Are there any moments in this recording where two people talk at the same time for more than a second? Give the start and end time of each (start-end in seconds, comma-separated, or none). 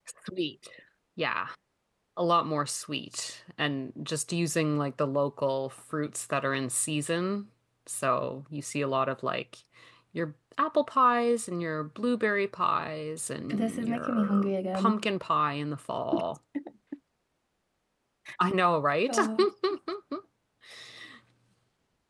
13.5-15.0